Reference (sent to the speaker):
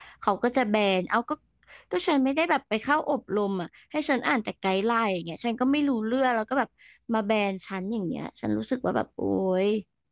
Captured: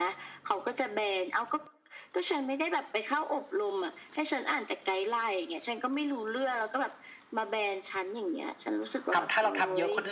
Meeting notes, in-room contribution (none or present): present